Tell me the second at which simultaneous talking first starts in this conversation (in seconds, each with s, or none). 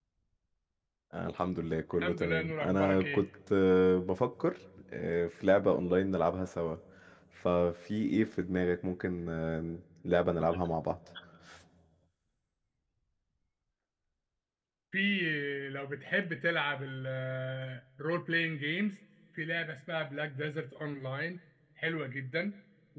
2.0 s